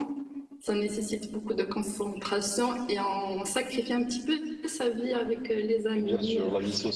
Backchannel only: No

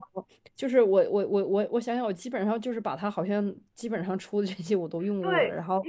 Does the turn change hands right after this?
Yes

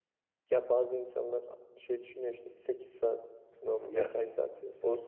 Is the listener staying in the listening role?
Yes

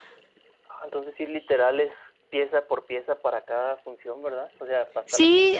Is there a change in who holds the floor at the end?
Yes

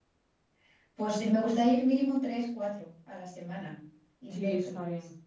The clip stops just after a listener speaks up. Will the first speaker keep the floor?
No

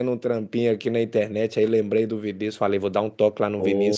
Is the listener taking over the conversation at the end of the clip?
No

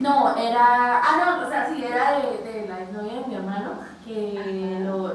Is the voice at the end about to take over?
No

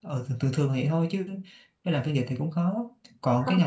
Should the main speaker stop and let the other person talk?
No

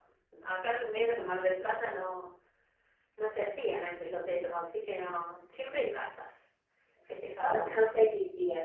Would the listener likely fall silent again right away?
No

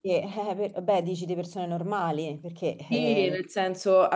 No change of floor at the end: No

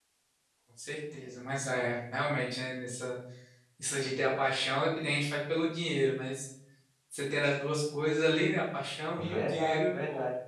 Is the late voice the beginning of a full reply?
Yes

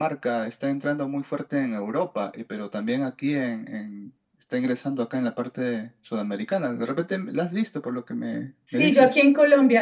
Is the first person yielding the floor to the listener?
Yes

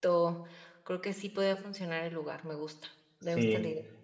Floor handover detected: Yes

